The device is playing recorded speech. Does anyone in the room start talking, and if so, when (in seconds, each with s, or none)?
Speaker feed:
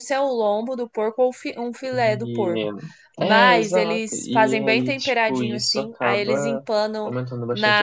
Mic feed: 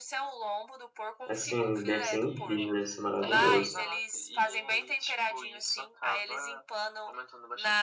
1.2 s